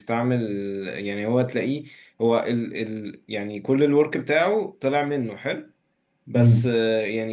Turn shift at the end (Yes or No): No